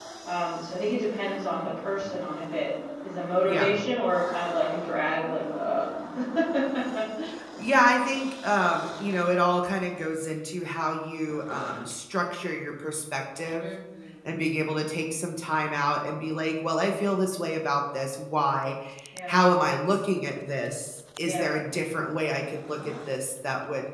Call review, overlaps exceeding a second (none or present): none